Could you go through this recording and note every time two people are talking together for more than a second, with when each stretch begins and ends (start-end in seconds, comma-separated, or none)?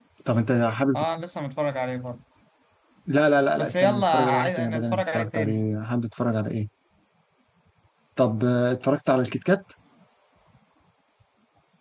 3.5-5.6